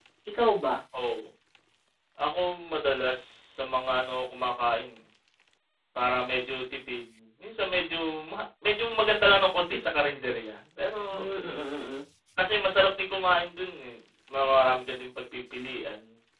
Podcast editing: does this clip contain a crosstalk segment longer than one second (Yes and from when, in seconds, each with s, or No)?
No